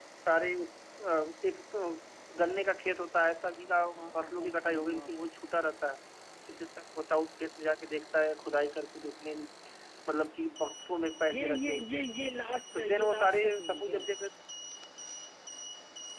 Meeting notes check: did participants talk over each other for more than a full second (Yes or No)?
Yes